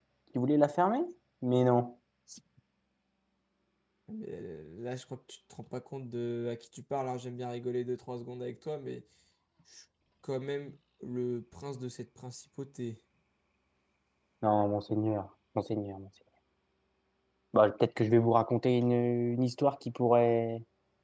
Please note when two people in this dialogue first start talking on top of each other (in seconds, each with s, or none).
none